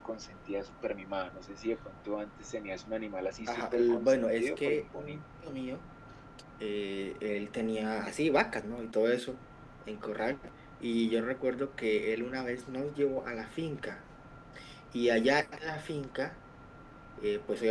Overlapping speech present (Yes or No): Yes